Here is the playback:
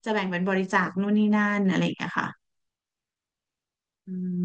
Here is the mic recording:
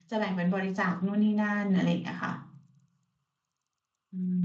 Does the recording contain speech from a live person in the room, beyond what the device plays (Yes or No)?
No